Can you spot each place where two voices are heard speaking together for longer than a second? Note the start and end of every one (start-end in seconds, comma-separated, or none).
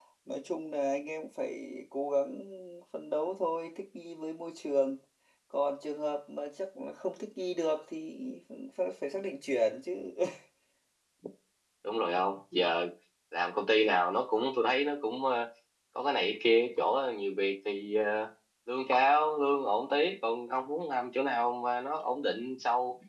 none